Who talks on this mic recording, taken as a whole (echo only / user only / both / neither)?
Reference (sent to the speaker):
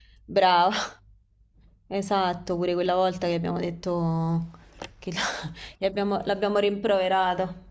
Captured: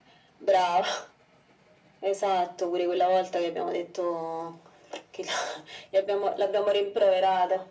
echo only